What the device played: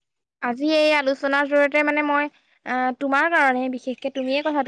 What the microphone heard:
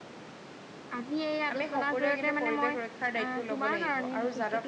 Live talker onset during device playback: 2 s

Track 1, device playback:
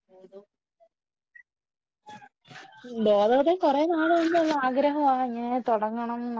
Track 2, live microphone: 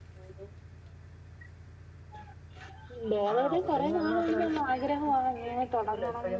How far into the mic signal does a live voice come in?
3 s

